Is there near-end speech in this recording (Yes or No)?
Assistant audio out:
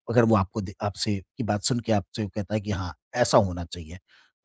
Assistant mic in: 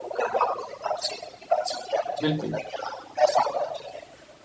Yes